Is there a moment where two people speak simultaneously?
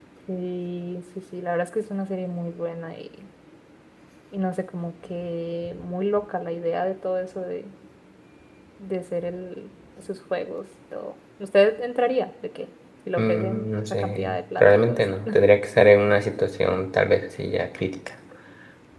Yes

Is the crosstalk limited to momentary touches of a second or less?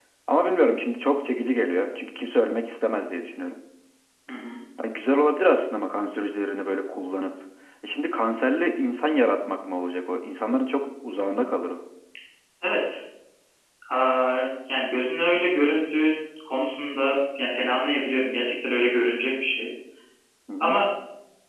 Yes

